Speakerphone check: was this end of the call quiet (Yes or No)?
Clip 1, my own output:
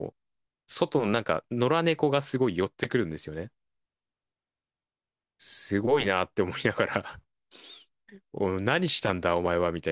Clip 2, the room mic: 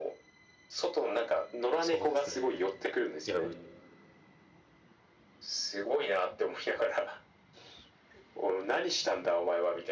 No